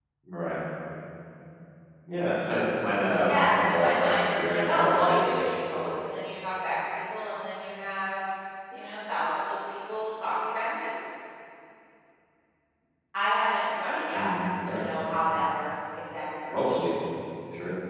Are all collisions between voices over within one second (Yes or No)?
No